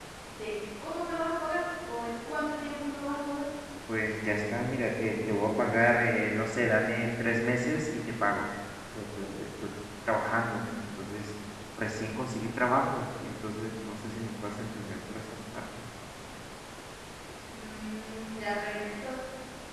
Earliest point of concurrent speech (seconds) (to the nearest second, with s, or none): none